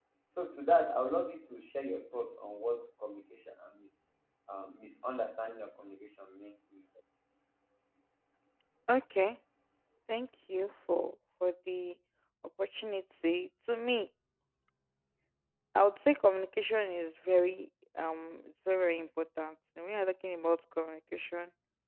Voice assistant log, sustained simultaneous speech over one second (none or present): none